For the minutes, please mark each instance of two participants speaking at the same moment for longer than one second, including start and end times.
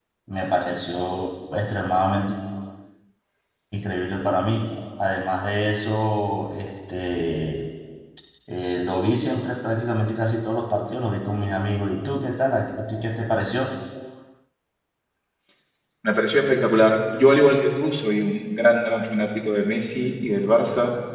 none

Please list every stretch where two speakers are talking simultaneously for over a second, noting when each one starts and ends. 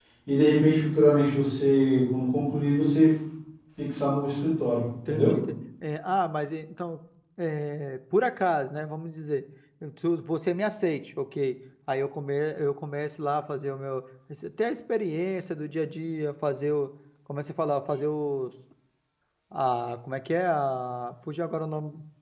none

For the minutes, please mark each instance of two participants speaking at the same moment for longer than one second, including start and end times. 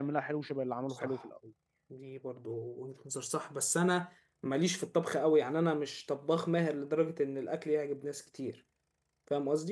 none

